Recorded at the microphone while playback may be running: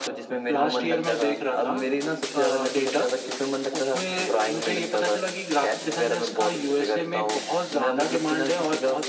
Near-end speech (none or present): none